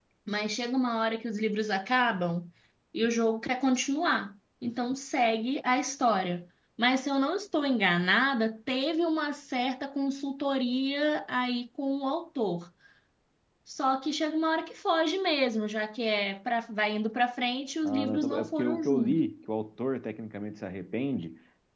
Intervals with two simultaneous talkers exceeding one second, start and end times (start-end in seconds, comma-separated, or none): 17.8-19.2